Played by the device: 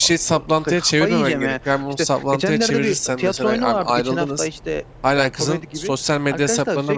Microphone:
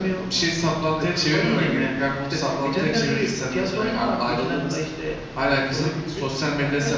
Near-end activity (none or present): none